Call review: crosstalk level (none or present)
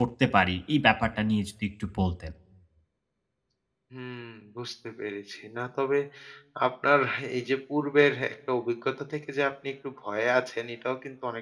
none